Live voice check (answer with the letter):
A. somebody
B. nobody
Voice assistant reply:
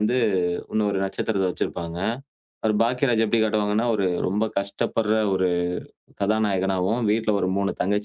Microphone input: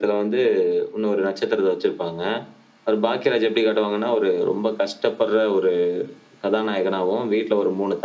B